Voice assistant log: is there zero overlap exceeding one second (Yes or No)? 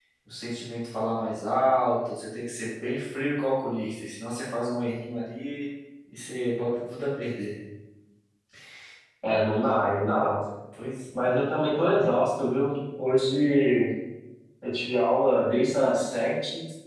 Yes